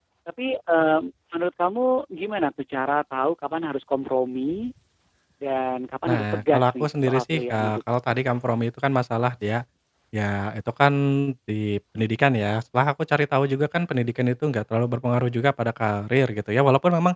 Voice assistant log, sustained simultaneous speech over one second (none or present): present